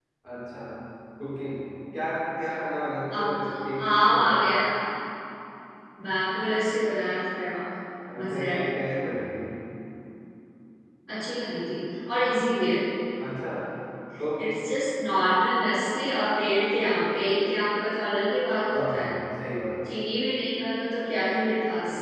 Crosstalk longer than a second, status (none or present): present